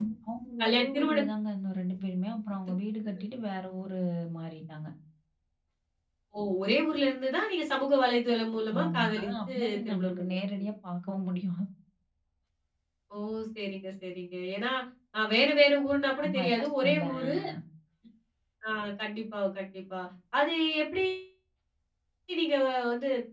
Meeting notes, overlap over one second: present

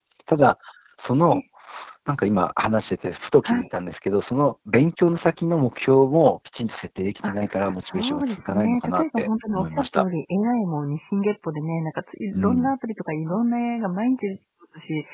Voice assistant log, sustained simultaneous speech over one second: present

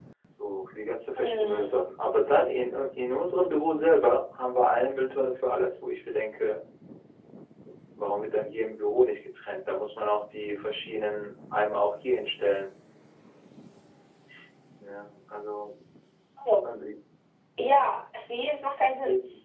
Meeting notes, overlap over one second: none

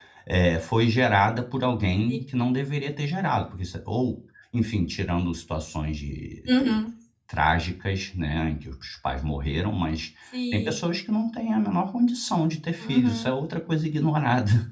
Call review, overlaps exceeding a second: none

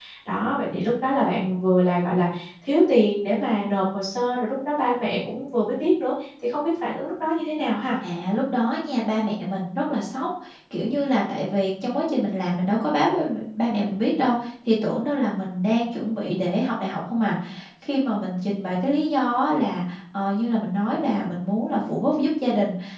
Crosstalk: none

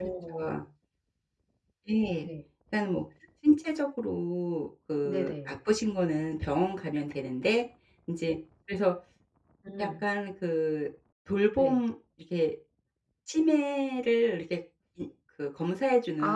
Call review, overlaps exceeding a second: none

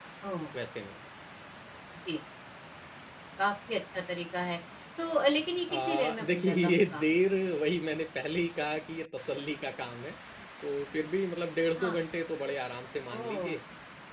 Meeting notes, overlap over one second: present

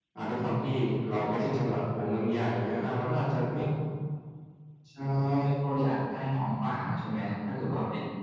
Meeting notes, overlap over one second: none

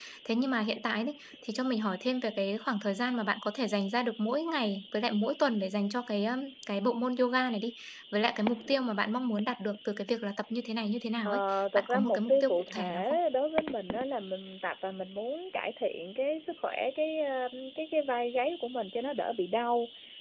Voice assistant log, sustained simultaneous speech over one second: present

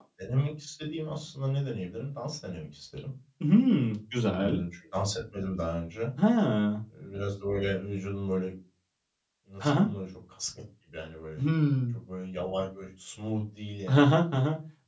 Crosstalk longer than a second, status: none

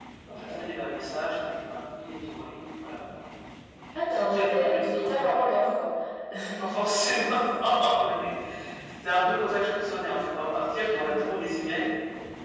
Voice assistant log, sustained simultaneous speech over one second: present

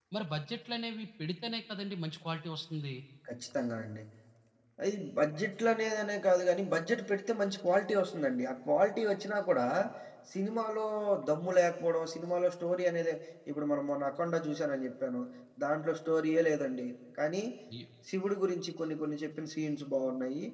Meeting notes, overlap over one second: none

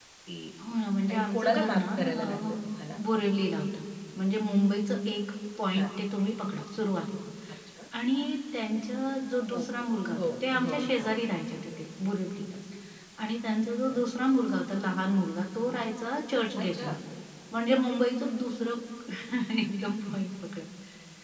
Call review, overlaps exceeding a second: present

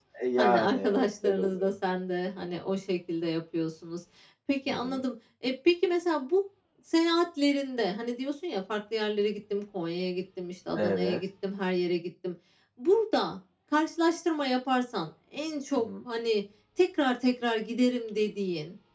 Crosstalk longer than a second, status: present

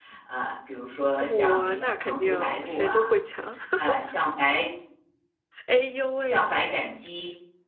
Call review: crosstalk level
present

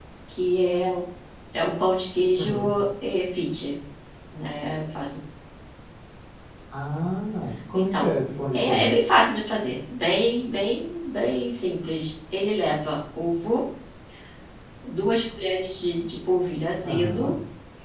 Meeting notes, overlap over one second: none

